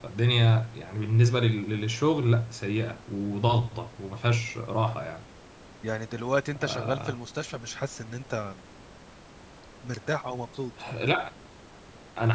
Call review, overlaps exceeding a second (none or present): none